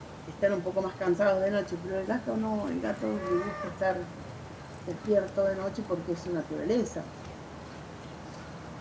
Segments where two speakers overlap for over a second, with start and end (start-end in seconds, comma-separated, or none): none